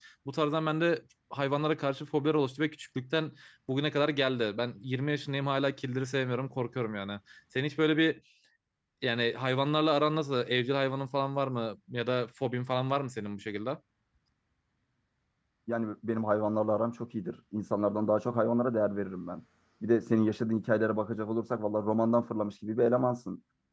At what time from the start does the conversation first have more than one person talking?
none

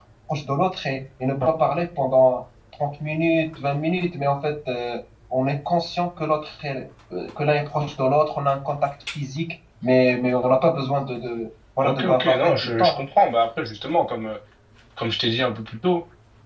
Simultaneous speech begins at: 12 s

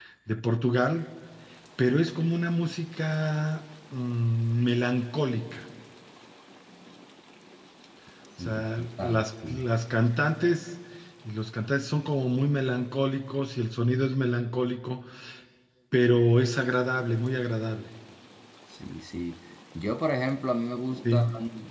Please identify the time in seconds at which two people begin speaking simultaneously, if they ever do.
8 s

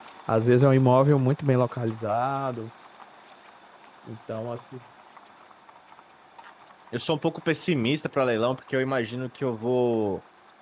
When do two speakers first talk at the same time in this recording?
none

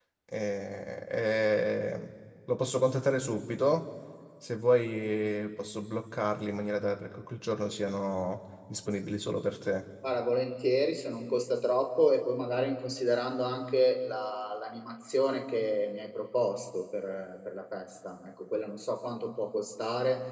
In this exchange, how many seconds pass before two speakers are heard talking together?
none

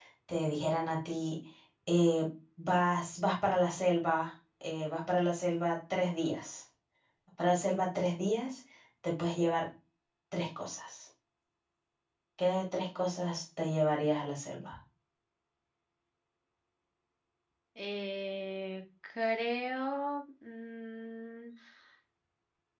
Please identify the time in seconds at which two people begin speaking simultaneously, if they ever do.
none

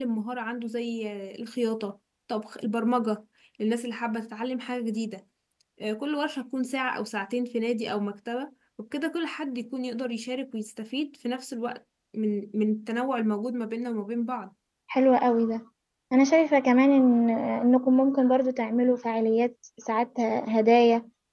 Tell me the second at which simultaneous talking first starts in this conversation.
none

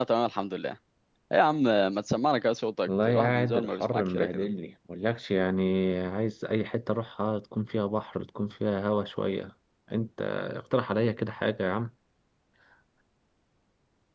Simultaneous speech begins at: 3 s

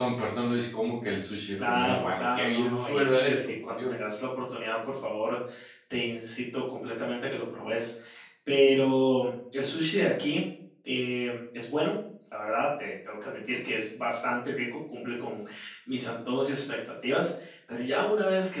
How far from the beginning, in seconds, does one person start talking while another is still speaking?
2 s

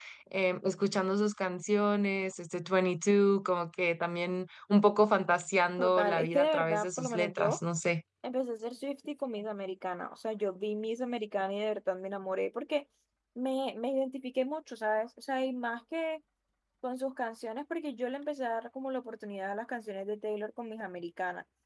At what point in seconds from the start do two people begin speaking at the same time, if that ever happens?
6 s

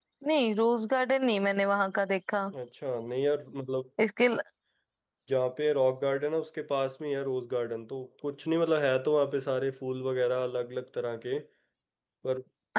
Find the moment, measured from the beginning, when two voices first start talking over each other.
none

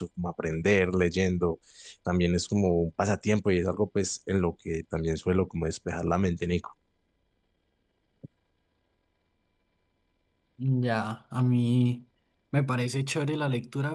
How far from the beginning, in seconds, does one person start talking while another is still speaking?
none

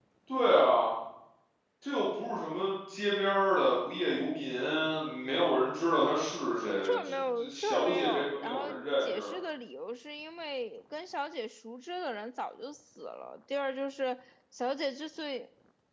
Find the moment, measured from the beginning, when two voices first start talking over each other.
7 s

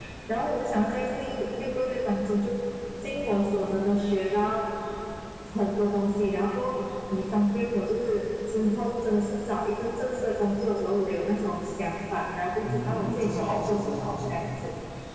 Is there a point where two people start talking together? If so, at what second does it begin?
13 s

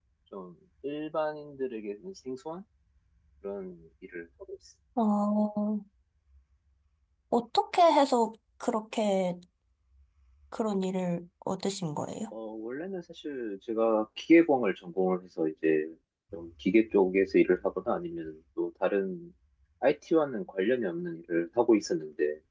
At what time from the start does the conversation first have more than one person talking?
none

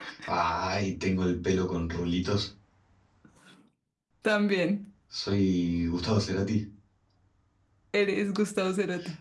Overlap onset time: none

